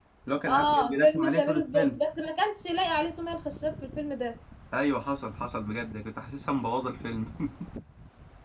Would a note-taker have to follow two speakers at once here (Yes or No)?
Yes